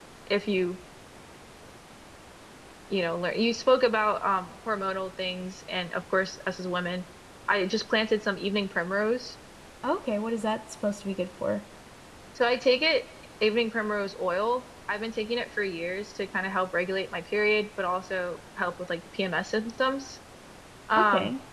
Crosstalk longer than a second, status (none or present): none